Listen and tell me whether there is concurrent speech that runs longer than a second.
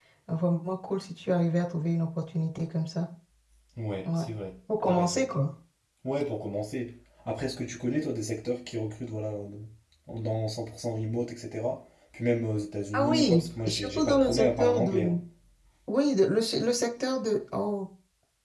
Yes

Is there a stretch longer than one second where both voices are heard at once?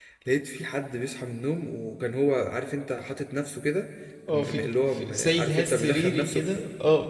Yes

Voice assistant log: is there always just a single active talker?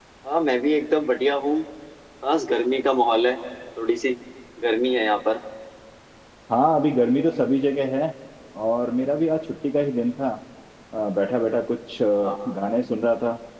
Yes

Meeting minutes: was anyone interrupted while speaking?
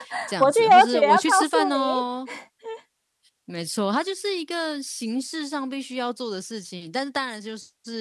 Yes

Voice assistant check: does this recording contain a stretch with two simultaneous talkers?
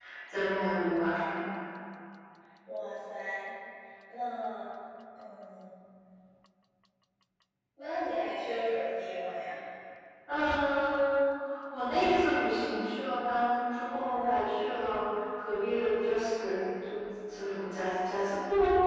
No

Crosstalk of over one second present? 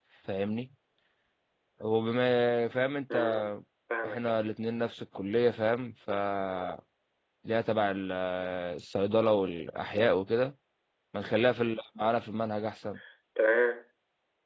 No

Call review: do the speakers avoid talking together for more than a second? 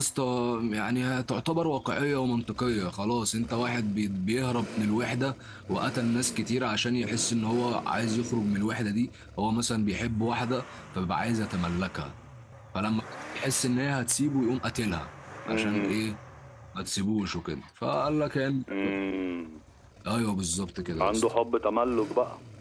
Yes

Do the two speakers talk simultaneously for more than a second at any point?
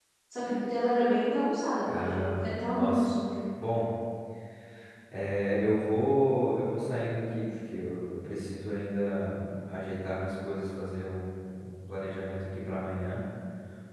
Yes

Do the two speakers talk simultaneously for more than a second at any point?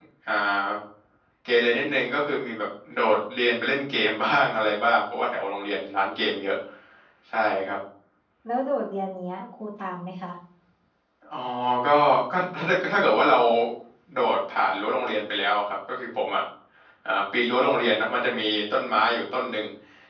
No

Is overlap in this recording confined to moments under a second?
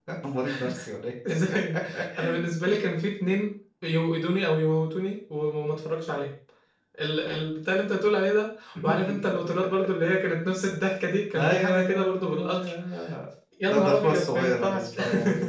No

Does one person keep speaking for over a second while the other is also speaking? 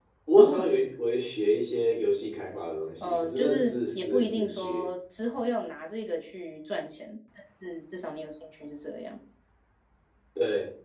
Yes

